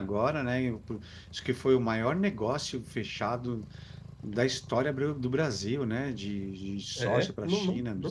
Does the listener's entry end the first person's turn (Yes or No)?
Yes